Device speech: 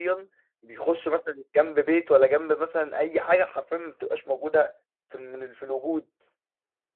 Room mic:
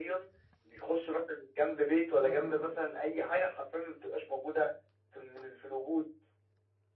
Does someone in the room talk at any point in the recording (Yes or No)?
Yes